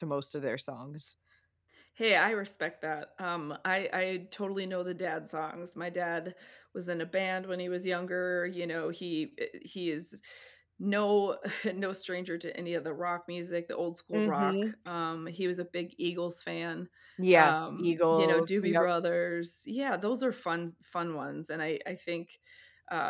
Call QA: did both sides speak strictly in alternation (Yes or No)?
No